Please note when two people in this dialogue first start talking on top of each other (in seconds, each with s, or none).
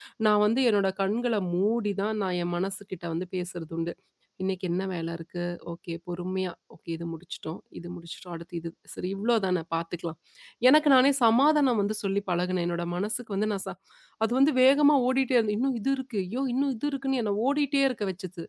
none